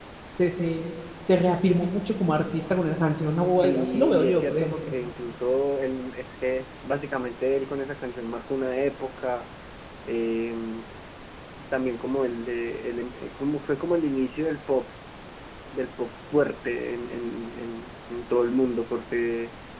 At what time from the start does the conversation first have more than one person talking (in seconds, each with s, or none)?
3.6 s